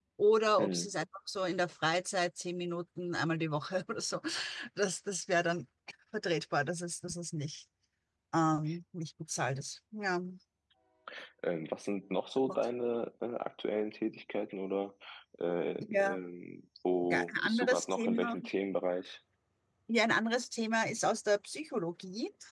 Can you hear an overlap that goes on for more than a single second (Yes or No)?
Yes